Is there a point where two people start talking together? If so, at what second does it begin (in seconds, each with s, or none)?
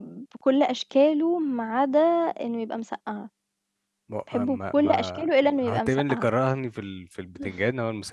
4.3 s